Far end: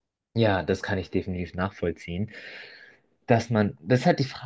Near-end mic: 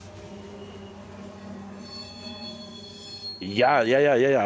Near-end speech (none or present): present